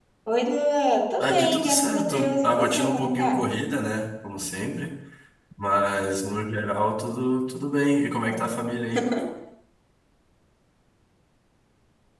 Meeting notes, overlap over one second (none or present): present